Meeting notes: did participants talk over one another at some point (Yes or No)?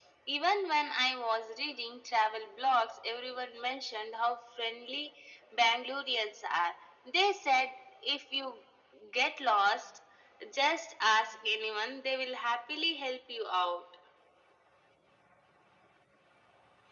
No